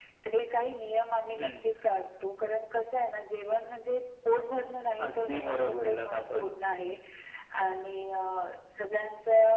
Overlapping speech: Yes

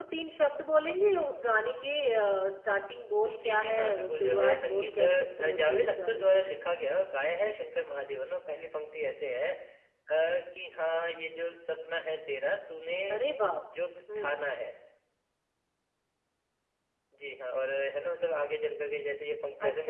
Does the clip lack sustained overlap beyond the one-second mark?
No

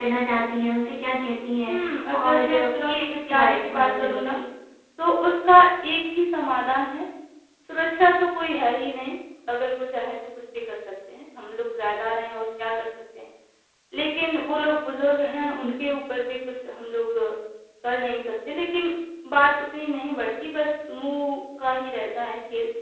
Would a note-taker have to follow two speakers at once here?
Yes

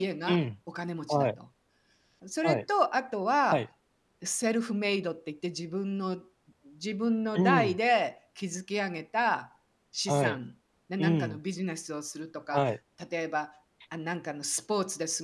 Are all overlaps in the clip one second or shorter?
Yes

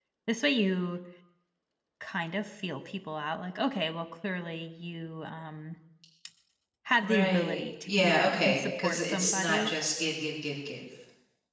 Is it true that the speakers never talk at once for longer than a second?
No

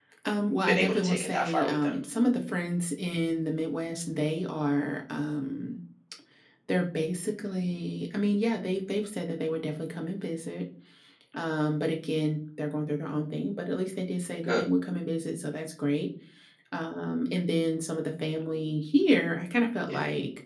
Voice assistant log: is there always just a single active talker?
No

